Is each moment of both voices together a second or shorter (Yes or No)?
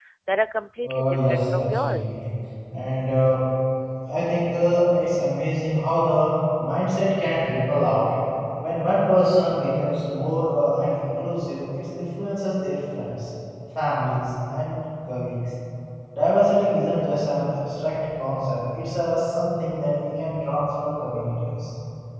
No